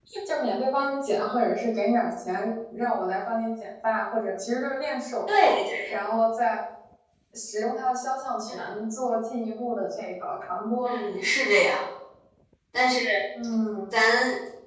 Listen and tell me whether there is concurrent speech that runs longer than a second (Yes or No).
No